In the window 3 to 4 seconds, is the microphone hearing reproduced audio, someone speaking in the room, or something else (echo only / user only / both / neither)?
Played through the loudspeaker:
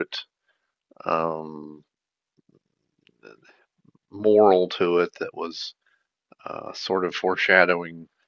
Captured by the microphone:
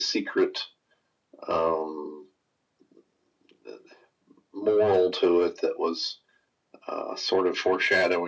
neither